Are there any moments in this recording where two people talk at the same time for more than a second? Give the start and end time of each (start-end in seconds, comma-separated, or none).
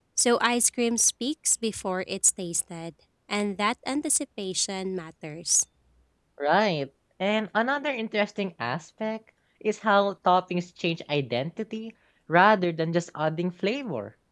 none